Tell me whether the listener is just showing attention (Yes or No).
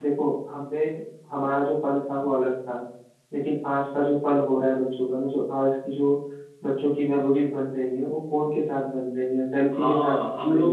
No